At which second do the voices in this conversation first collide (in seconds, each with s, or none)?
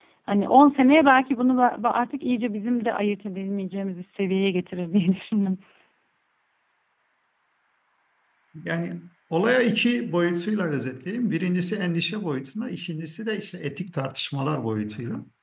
none